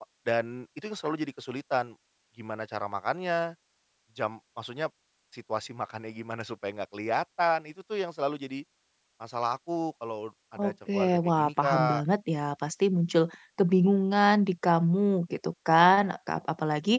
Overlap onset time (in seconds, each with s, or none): 10.6 s